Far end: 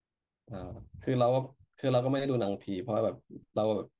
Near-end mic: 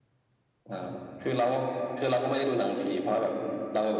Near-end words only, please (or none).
none